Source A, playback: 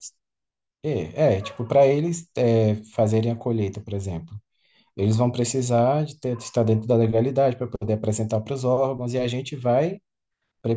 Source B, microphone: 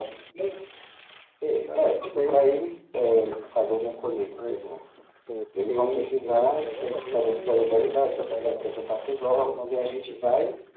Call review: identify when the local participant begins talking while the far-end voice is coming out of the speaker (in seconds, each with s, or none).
1.6 s